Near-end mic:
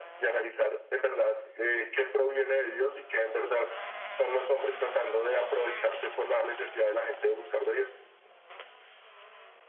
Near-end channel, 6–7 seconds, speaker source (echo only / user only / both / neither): echo only